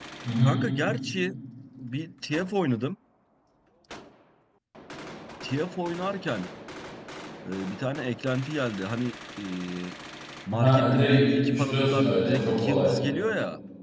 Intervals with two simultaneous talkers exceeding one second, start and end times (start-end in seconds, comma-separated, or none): 10.5-12.9